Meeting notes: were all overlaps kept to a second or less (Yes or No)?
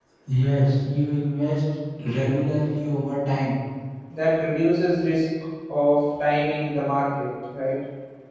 Yes